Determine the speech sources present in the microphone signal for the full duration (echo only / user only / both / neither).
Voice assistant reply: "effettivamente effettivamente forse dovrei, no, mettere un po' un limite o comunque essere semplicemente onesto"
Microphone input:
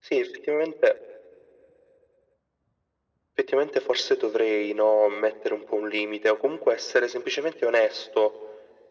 echo only